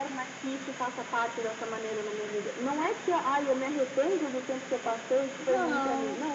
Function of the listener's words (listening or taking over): listening